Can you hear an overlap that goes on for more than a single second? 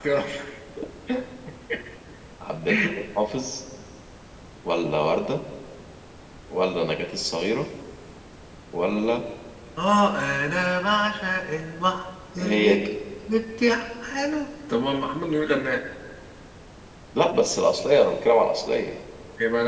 No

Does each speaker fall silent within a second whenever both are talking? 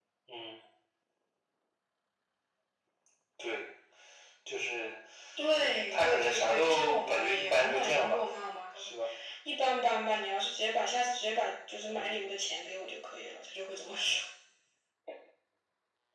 No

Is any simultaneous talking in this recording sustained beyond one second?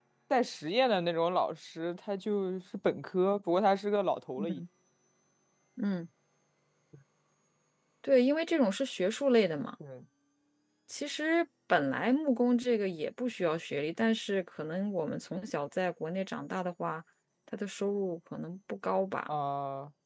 No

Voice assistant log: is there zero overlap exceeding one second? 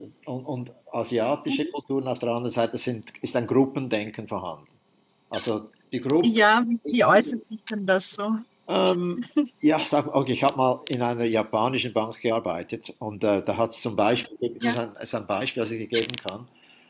Yes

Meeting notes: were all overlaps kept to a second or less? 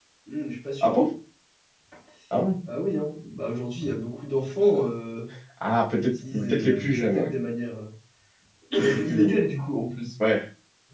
No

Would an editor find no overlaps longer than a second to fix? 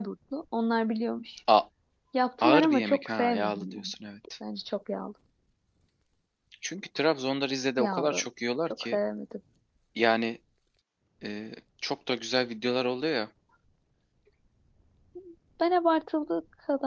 No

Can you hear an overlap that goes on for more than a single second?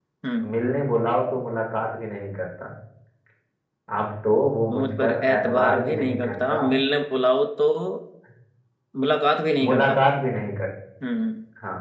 Yes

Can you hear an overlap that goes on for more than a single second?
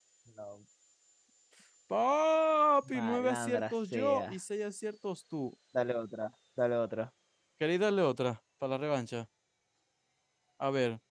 Yes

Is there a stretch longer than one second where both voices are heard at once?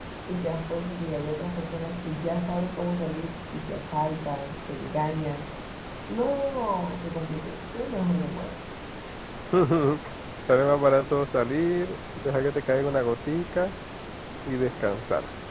No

